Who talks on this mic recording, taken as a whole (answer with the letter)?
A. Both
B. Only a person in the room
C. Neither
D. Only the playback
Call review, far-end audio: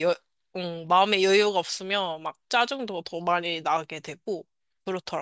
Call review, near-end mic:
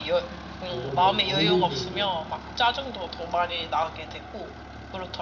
A